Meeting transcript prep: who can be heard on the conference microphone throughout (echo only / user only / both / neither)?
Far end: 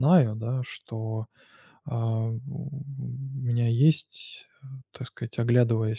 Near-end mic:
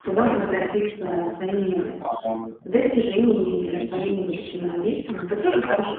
both